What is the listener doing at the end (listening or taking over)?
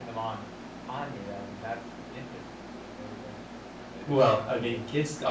taking over